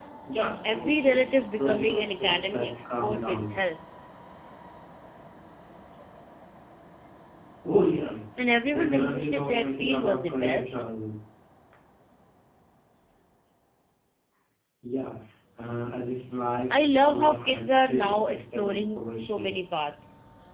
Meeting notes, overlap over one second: present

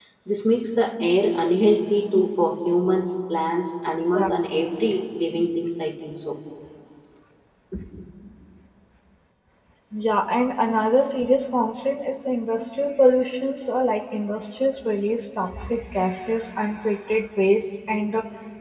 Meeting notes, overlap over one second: none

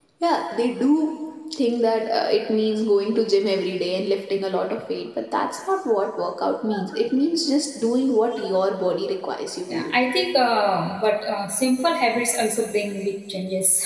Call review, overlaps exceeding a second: none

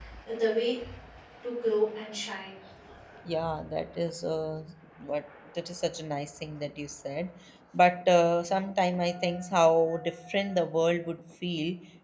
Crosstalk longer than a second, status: none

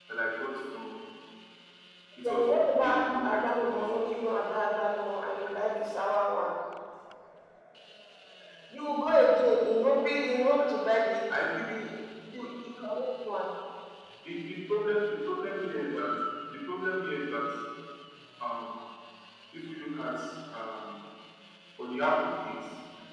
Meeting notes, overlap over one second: present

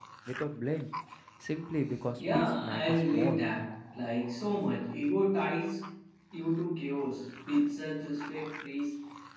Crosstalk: present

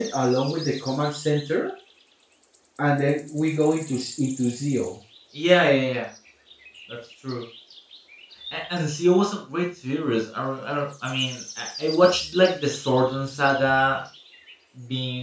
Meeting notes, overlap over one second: none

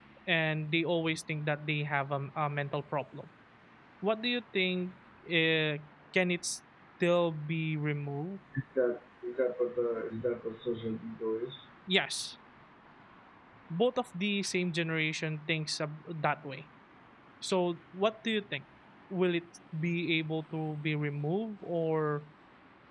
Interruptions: none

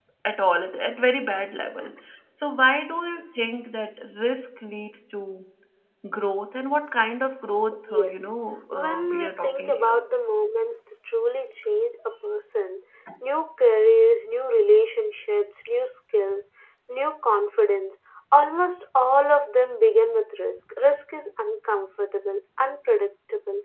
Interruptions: present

